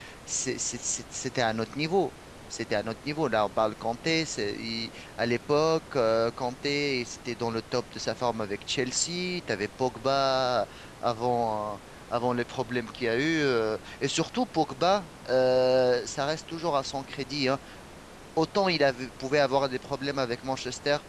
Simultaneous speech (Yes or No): No